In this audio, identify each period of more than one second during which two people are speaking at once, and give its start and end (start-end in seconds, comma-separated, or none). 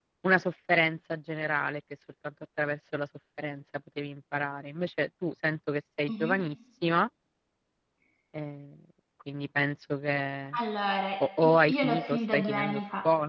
11.4-12.8